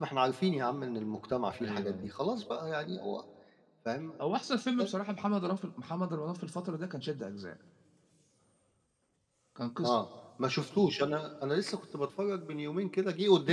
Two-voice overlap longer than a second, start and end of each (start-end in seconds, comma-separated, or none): none